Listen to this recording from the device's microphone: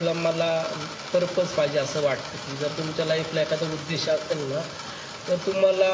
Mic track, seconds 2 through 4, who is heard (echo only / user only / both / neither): echo only